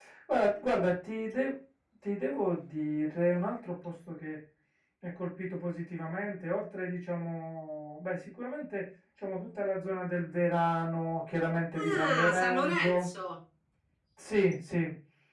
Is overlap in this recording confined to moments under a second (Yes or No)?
No